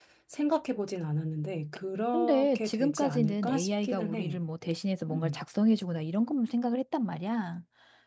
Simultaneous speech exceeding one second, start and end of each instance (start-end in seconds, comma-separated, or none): 2.1-4.4